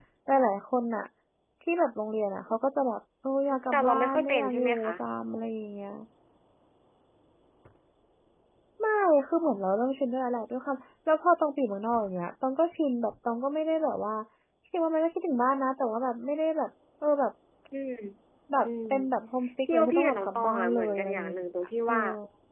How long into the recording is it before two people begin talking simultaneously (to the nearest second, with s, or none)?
4 s